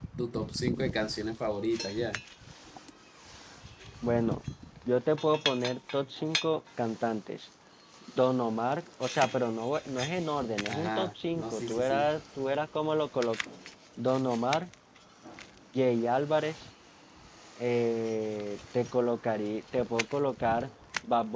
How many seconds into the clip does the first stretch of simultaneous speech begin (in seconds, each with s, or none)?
10.7 s